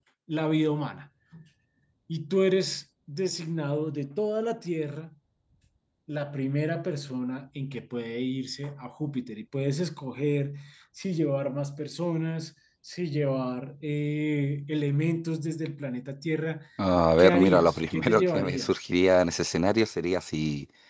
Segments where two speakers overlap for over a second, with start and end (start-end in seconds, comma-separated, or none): 17.2-18.8